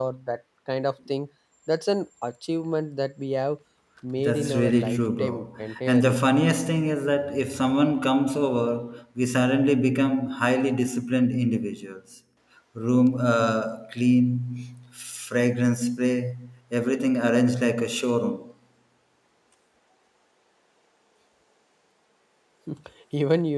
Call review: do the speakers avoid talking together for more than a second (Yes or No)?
No